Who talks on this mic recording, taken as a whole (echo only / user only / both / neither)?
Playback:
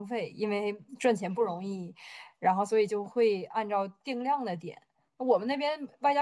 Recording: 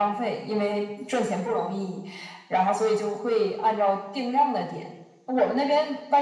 echo only